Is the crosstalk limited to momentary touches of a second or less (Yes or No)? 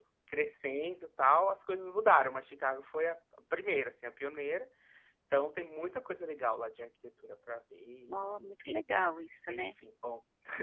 Yes